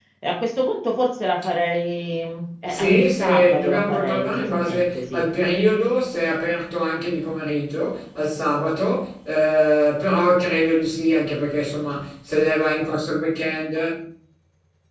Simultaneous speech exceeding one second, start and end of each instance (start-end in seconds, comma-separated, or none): 2.7-5.3